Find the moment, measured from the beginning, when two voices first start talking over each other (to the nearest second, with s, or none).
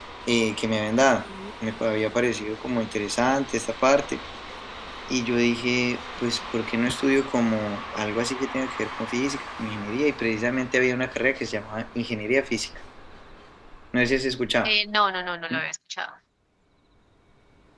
none